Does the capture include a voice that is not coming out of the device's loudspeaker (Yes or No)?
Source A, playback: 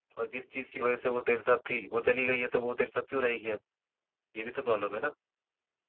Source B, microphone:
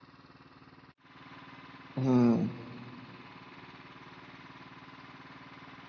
Yes